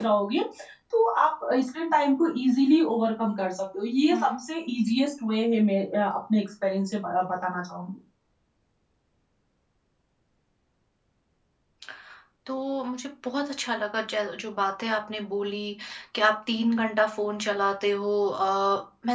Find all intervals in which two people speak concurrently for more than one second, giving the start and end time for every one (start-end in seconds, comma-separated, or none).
none